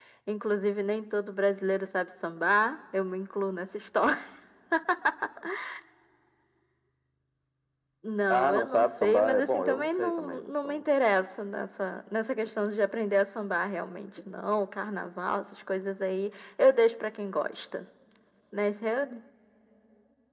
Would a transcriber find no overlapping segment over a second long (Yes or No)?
No